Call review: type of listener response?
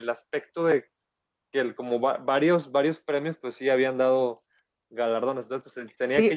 taking over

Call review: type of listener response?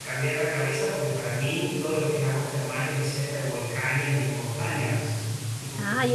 taking over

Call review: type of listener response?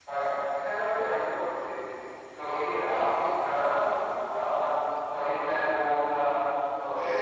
taking over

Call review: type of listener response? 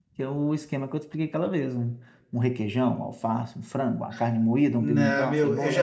taking over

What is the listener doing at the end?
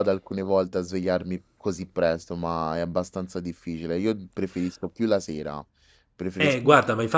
taking over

